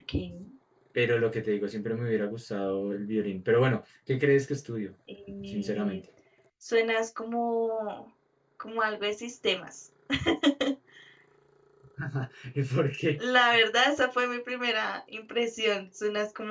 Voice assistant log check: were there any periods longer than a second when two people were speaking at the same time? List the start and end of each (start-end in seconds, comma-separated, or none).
none